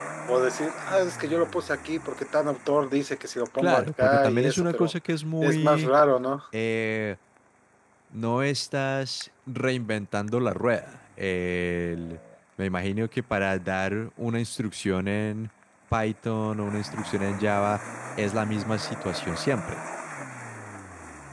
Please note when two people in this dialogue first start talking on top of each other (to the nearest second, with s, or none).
4 s